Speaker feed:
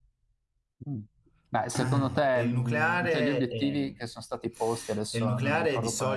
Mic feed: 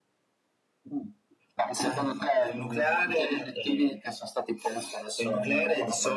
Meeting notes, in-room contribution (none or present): none